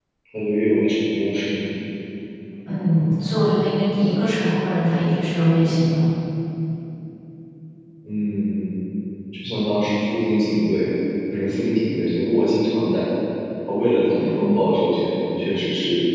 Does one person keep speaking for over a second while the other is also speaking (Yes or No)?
No